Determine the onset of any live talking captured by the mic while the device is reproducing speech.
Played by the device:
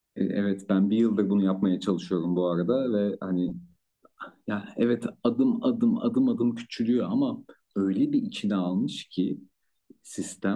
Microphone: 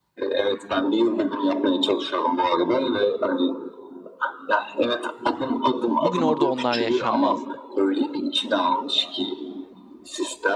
6.0 s

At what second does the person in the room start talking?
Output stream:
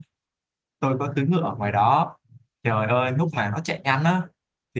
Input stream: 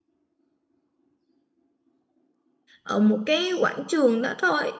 2.8 s

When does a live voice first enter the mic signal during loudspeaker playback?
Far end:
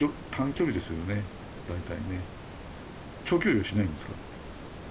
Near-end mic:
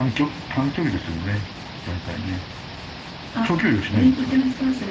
3.3 s

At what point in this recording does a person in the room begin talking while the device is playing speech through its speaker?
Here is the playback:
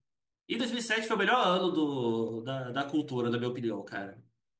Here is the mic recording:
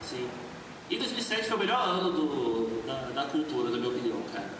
none

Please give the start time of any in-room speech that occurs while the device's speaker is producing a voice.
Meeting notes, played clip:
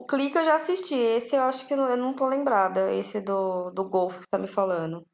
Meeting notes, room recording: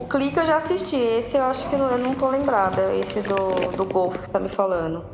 none

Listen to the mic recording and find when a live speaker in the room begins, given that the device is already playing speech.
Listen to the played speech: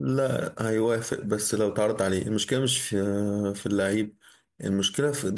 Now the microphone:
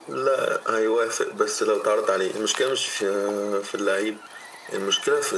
none

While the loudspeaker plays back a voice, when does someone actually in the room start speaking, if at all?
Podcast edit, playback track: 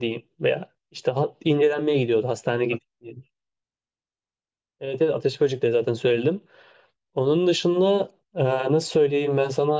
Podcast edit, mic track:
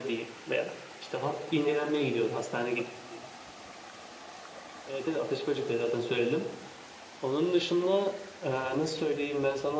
none

